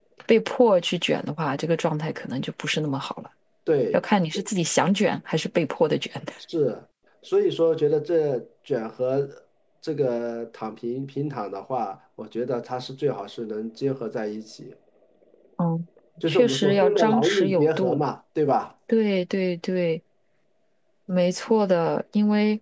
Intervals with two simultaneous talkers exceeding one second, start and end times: 16.3-18.0

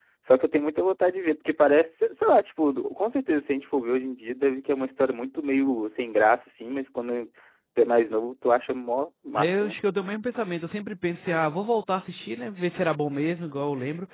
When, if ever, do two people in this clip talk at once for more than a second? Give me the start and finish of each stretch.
none

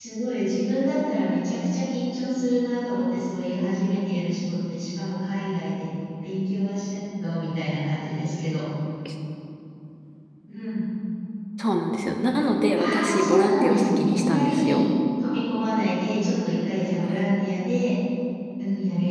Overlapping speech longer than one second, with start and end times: 12.8-14.8

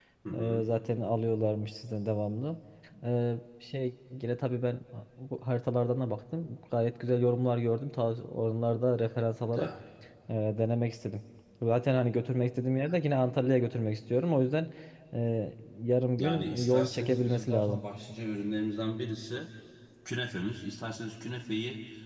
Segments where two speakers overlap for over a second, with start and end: 16.2-17.8

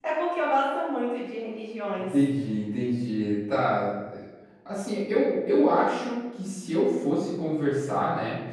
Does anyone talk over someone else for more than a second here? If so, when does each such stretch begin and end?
none

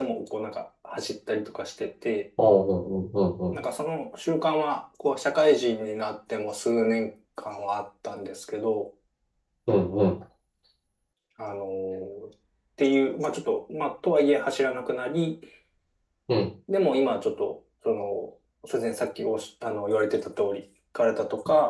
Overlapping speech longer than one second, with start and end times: none

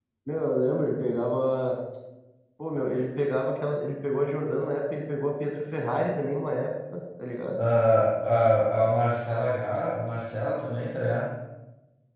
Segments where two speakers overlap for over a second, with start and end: none

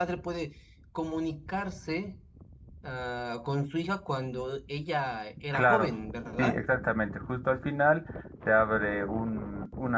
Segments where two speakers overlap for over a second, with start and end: none

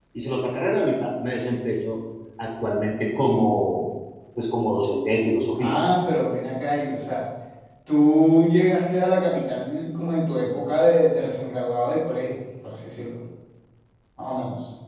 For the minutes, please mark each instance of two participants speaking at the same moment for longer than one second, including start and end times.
none

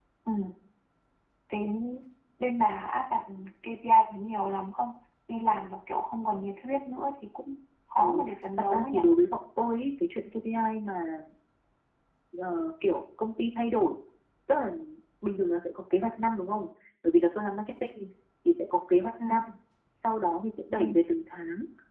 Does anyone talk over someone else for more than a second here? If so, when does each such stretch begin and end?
none

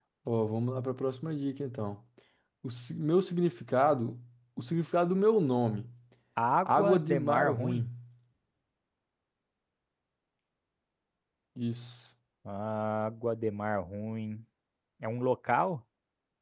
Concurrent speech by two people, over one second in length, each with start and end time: 6.7-7.9

